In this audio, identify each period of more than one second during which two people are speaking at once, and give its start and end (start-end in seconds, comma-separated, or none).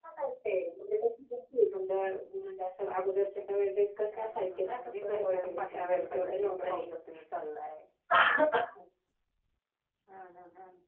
4.1-6.9